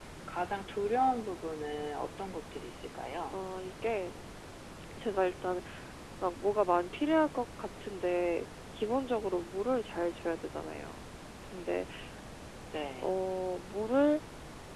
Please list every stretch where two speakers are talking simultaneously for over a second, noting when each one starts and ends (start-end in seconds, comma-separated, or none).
none